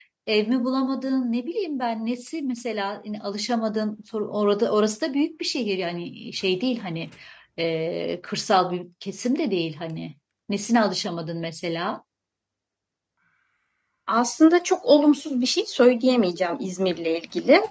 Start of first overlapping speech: none

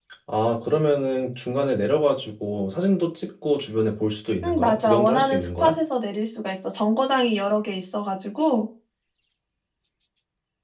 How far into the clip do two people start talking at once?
4 s

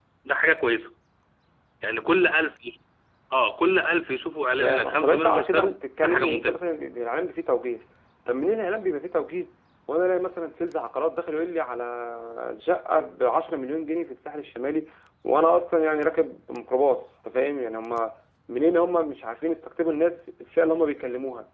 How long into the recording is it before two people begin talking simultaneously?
5 s

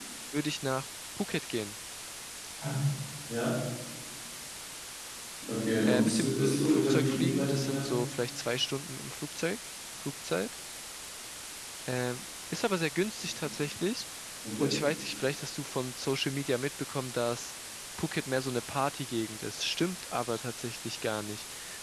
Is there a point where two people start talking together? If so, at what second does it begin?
6 s

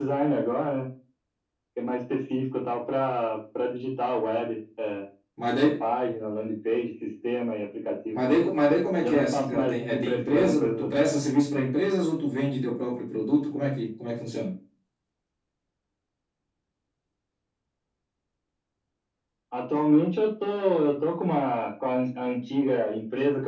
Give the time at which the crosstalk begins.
9 s

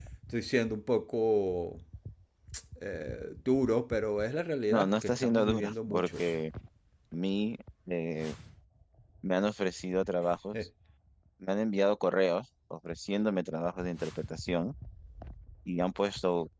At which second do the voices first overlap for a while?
5 s

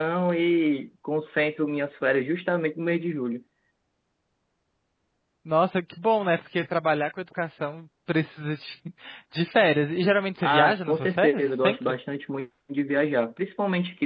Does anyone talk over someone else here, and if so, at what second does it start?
10 s

